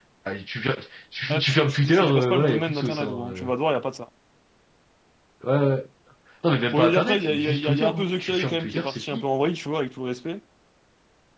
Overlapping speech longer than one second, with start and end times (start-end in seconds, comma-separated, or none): 1.3-3.5, 6.7-9.2